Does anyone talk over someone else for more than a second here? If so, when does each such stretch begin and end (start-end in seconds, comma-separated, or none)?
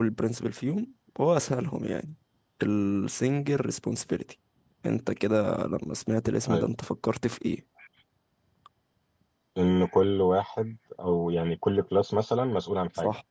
none